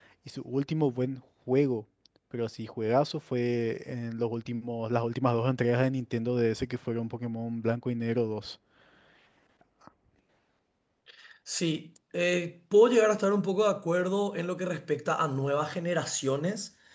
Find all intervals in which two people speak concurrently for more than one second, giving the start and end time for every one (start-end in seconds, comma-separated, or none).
none